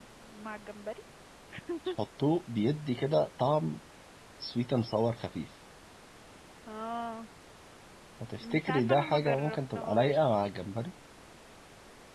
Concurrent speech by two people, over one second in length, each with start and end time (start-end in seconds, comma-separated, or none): 8.4-10.3